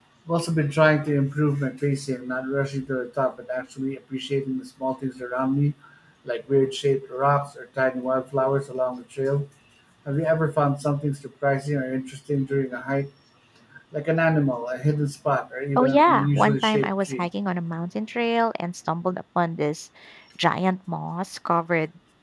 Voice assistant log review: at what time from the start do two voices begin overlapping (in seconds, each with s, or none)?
15.8 s